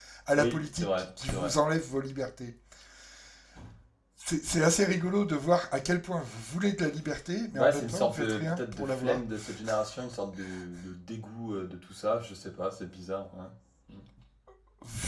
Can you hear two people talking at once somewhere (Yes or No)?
Yes